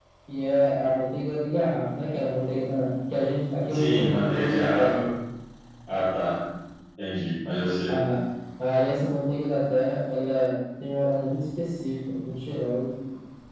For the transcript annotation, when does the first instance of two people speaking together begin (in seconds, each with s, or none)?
3.7 s